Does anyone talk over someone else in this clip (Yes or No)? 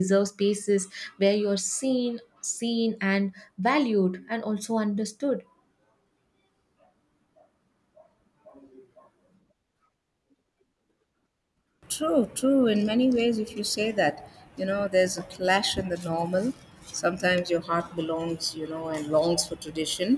No